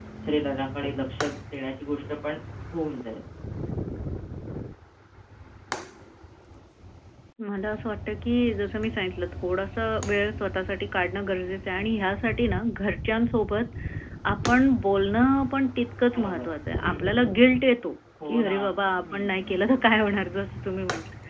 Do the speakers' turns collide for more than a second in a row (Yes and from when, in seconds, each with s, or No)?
No